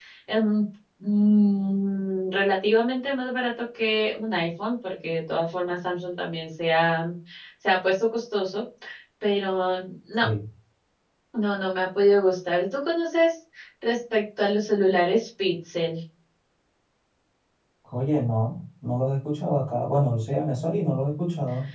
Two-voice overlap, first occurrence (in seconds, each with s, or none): none